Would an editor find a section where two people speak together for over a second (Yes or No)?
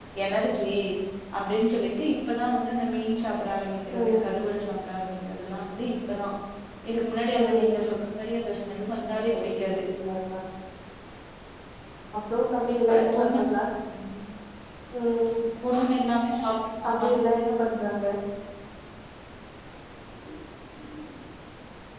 No